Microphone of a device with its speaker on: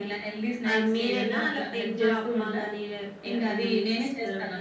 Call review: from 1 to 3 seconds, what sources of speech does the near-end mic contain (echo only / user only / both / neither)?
echo only